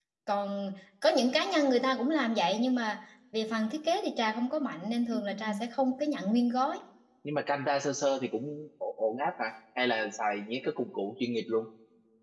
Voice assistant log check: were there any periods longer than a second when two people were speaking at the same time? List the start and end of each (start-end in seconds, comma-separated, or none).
none